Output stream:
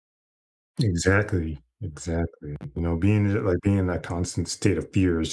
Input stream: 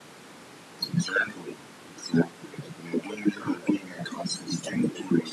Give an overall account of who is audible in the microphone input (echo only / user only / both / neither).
echo only